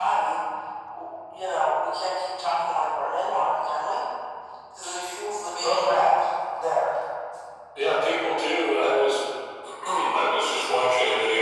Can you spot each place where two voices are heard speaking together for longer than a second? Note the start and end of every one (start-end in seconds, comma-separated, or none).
none